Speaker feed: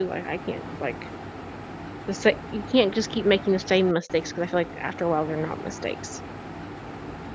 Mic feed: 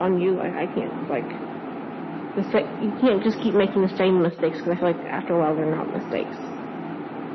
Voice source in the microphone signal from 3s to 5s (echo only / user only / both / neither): echo only